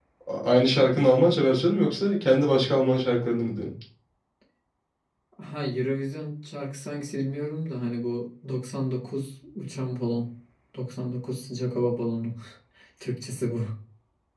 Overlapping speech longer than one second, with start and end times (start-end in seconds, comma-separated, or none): none